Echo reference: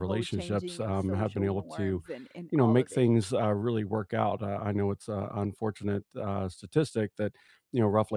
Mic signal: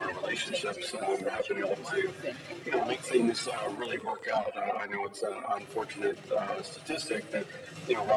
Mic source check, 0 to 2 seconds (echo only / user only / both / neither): echo only